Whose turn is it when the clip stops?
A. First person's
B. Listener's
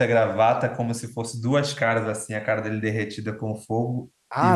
B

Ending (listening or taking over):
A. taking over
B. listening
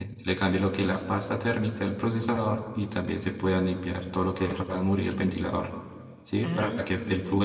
B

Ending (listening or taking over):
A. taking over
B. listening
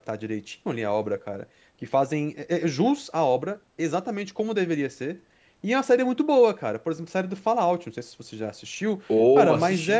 B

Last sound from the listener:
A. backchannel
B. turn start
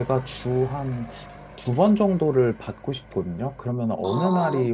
A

